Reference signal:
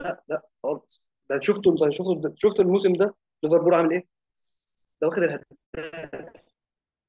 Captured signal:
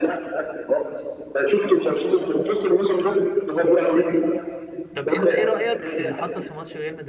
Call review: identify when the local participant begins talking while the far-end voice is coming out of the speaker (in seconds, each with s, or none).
4.9 s